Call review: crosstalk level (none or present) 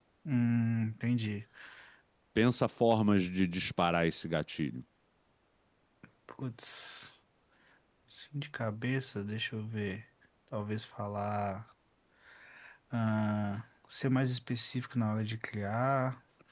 none